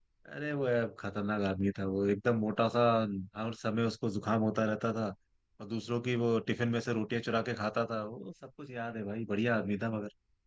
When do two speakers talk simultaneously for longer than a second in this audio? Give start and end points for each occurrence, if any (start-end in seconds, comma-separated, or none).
none